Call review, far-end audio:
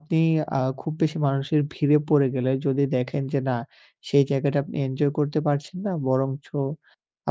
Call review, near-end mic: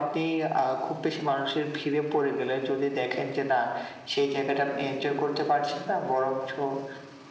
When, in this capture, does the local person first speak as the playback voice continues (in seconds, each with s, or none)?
none